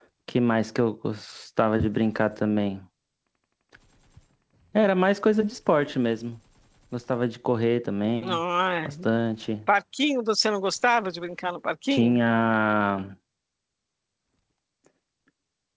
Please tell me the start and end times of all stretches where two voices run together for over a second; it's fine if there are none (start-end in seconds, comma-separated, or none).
none